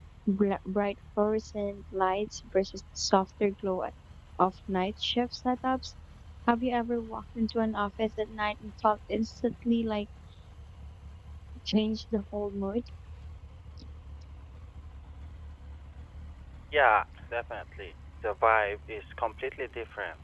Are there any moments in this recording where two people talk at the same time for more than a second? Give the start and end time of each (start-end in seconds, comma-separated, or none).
none